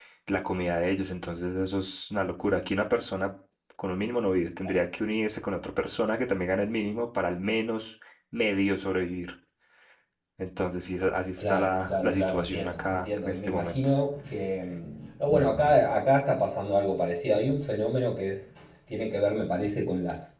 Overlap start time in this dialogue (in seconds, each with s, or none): 11.4 s